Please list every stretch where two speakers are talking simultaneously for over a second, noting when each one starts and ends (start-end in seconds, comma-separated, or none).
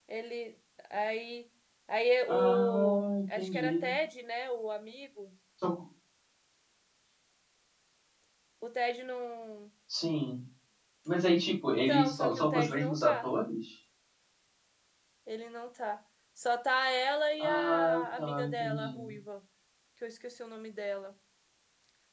2.3-3.9, 11.9-13.2, 17.4-19.1